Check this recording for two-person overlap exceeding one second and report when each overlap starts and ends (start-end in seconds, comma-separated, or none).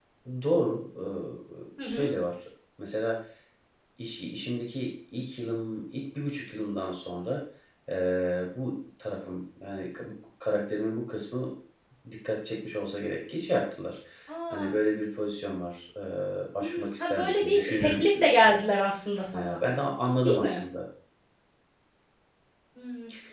16.6-18.6